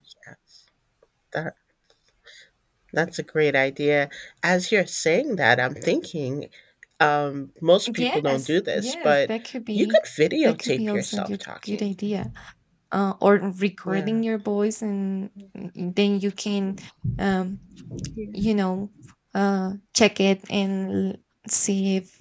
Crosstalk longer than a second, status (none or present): present